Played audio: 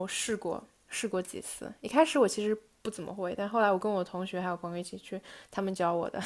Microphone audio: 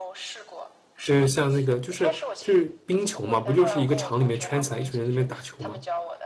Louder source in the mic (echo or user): user